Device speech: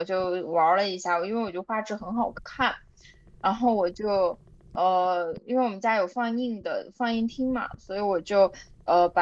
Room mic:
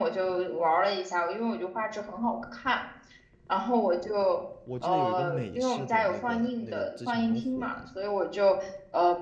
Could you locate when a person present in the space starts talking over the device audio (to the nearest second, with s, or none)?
5 s